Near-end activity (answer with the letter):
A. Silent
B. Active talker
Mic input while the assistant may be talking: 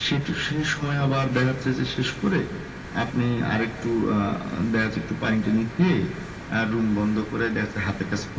A